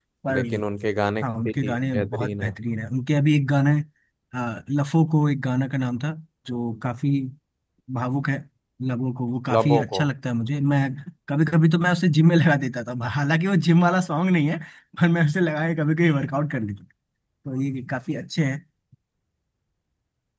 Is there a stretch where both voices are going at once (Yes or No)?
Yes